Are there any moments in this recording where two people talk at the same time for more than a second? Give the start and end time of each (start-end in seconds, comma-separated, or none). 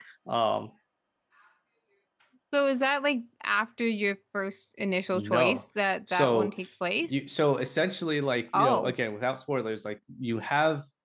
none